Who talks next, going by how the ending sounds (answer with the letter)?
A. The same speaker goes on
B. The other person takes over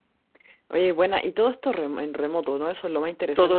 B